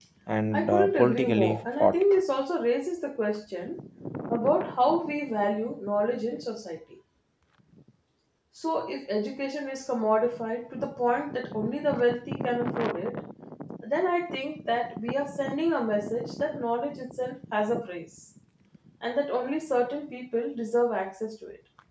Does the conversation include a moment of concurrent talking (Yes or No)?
Yes